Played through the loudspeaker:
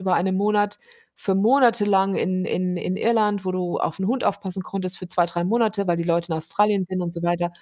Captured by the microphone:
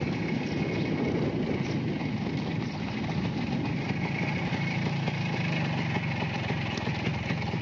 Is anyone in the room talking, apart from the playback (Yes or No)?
No